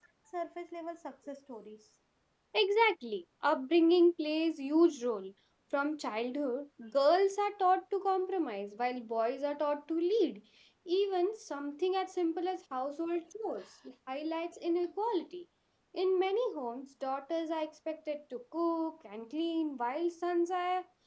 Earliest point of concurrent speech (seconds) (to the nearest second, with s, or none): none